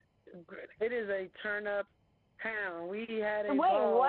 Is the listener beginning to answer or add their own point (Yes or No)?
No